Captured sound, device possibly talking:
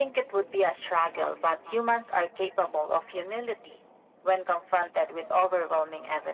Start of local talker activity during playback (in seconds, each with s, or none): none